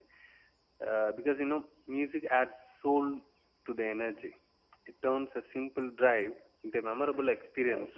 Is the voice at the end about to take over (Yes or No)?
Yes